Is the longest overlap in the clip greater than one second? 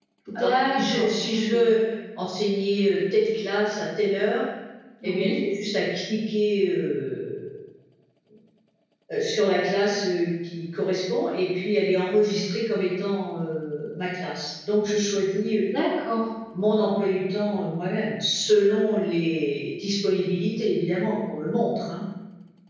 Yes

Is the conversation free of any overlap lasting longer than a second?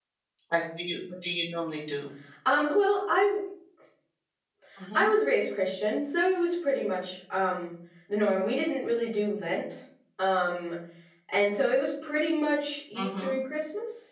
Yes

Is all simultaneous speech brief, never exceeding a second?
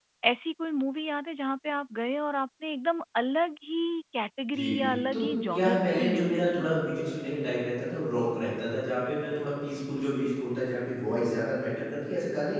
No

